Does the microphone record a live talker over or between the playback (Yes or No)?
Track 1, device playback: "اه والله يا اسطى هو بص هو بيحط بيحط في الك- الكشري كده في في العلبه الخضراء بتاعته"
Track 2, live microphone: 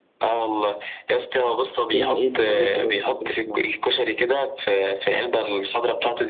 Yes